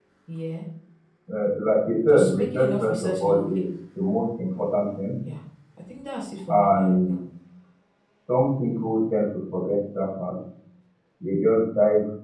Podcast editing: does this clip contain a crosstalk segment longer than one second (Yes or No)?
Yes